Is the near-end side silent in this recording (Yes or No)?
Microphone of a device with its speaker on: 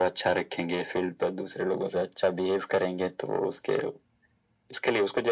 Yes